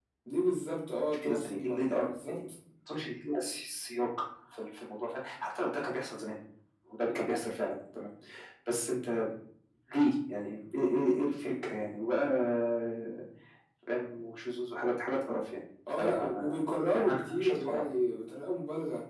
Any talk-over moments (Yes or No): Yes